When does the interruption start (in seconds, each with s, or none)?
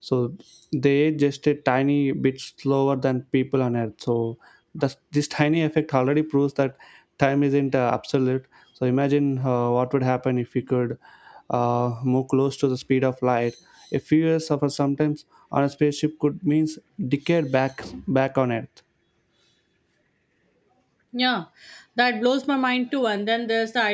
none